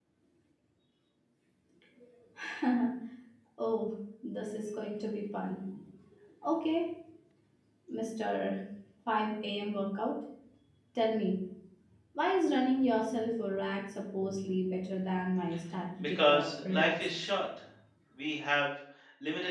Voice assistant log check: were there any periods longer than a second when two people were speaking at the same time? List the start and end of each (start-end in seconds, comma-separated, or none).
16.0-17.3